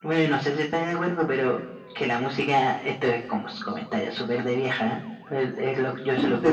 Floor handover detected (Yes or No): No